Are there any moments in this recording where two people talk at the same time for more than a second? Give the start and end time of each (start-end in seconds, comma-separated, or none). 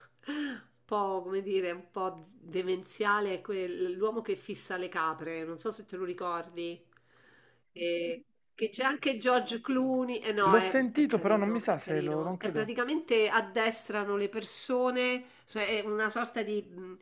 10.4-12.7